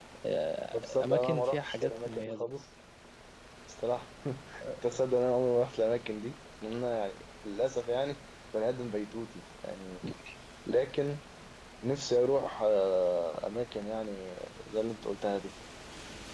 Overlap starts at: 0.7 s

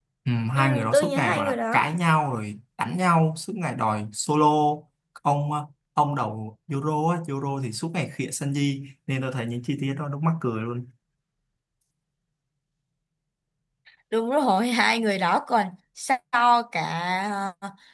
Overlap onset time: 0.6 s

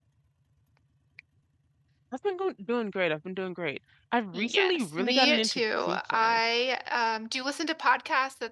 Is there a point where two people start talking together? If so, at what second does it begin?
4.3 s

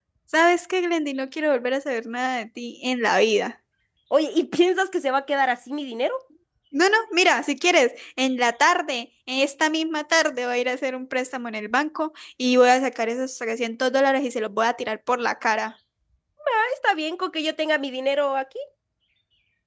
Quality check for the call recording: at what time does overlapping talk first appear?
none

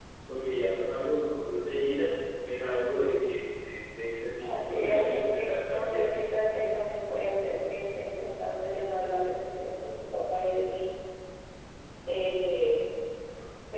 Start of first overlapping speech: 4.4 s

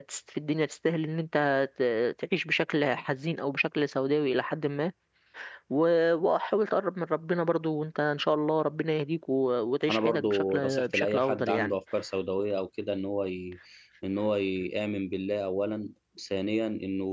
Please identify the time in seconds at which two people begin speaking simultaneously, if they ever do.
9.9 s

